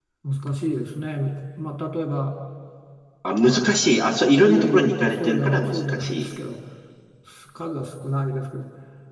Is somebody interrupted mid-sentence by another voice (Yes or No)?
Yes